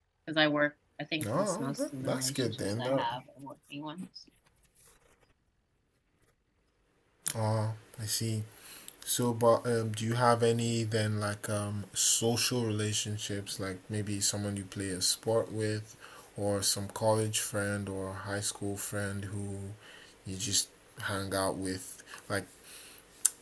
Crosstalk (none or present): present